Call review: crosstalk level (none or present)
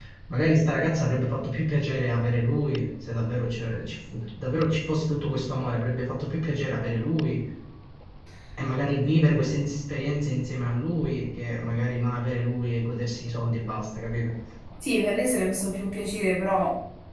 none